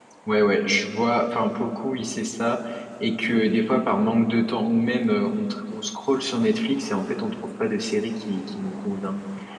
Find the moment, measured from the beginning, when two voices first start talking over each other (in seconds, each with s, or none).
none